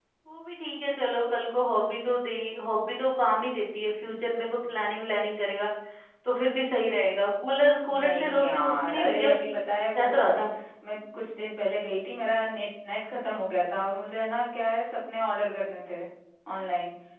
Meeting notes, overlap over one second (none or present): present